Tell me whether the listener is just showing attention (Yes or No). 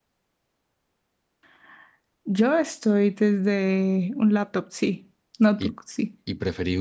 No